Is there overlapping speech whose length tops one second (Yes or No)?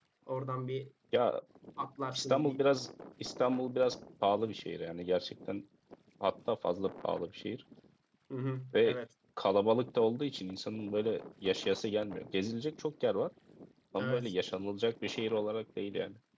No